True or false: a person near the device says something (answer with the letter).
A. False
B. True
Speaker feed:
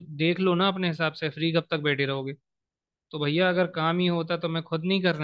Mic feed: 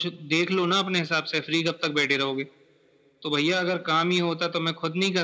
A